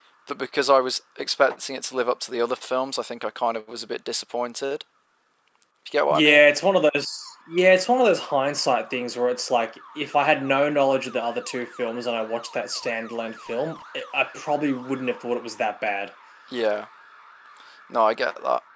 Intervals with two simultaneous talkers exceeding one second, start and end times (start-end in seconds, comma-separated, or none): none